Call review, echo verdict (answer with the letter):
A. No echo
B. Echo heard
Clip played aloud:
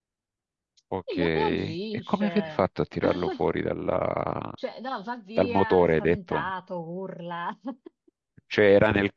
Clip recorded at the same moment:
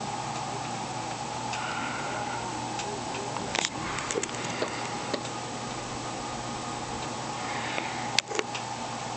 A